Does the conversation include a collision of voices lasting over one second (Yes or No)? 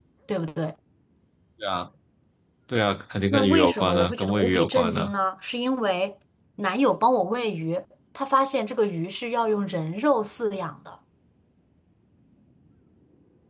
Yes